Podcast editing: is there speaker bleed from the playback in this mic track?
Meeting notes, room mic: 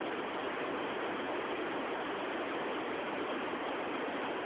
No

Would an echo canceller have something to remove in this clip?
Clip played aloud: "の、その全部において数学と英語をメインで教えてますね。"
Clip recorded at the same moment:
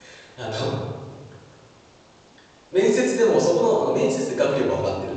No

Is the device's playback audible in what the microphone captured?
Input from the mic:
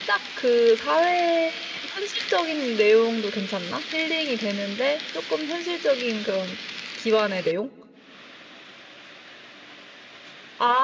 No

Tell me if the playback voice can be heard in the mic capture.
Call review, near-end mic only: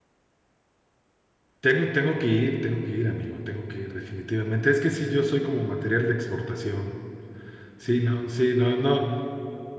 No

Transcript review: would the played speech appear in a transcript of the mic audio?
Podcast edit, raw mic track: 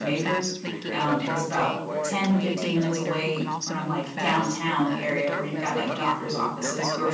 Yes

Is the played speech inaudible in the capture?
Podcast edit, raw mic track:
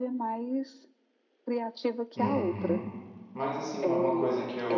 No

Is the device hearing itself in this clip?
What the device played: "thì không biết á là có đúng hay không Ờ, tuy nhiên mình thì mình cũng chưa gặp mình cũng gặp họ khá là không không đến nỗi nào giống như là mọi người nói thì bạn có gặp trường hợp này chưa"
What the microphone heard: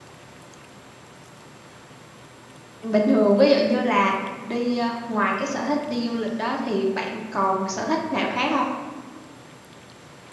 No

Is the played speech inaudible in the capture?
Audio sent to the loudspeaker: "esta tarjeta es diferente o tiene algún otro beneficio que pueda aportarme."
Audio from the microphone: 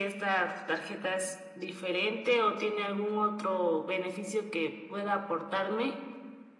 No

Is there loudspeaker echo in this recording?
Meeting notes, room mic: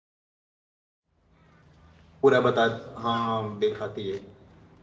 No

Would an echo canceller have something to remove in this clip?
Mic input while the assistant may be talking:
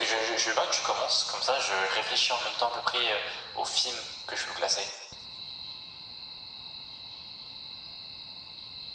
Yes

